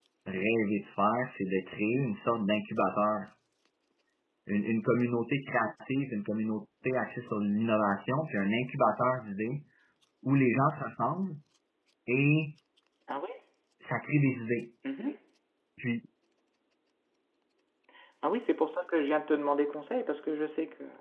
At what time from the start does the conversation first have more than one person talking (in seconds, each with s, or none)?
none